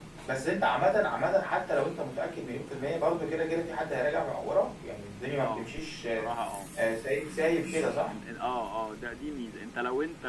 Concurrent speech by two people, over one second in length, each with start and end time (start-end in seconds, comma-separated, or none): none